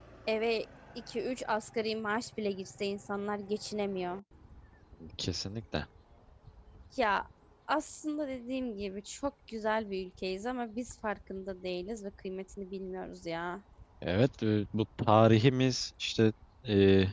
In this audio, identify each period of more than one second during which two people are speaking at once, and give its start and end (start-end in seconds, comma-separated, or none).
none